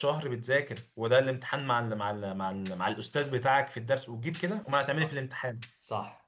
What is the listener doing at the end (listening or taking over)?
taking over